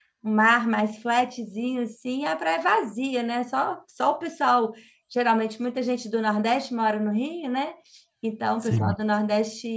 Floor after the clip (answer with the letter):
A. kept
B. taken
A